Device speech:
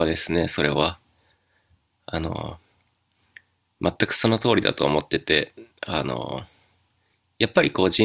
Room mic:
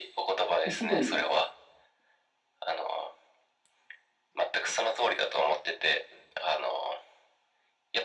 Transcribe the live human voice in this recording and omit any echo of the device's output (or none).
一部に